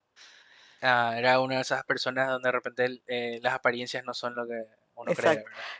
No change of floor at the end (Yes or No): No